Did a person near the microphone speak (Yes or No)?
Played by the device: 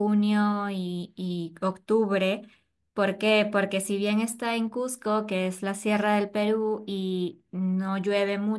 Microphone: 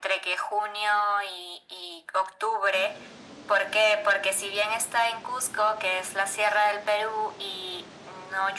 No